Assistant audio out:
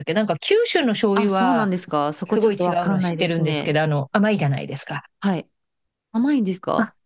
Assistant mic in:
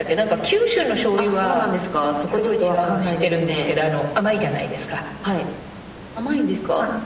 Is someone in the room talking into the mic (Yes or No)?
No